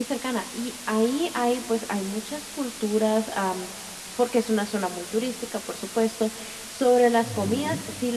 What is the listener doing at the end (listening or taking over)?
listening